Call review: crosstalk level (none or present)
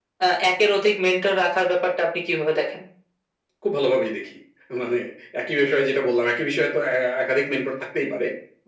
none